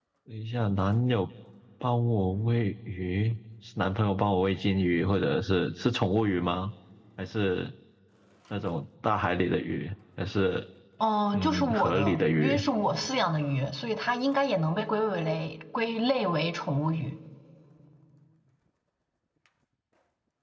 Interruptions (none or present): present